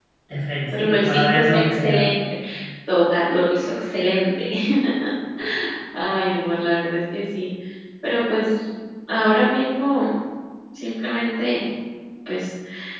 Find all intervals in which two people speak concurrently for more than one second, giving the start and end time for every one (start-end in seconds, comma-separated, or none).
0.8-2.1